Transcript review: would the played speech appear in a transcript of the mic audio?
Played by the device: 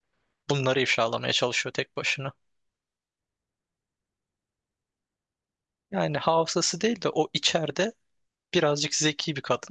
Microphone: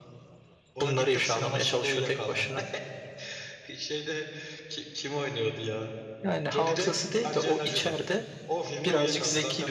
Yes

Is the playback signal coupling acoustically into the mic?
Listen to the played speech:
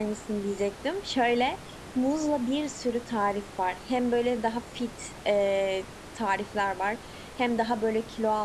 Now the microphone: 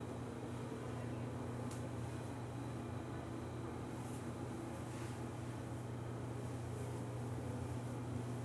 No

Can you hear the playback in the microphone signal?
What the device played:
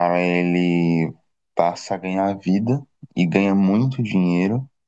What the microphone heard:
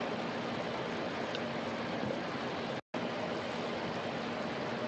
No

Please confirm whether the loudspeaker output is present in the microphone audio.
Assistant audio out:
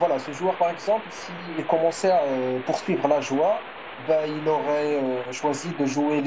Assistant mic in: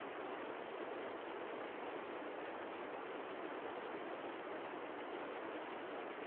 No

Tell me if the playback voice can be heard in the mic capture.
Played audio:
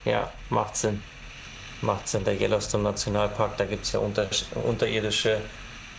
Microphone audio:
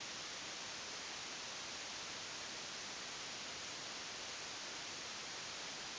No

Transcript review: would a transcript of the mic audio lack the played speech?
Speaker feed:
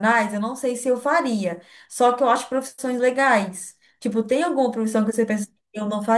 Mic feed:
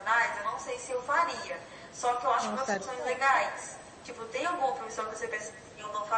No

